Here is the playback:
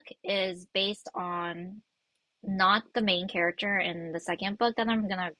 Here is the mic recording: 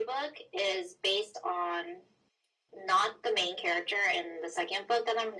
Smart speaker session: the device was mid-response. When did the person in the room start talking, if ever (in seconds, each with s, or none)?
none